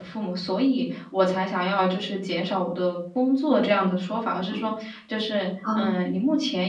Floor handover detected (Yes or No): No